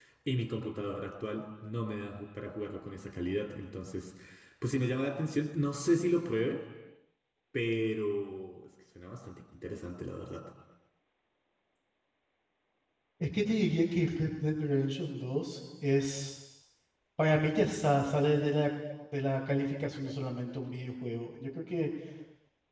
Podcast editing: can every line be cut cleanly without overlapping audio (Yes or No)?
Yes